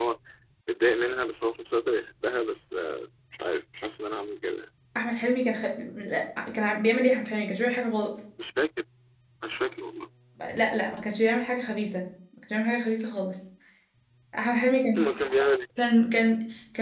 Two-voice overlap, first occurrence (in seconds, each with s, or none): none